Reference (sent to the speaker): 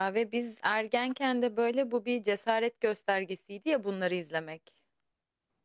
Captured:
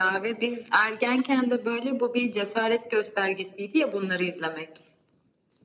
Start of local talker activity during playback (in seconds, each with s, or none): none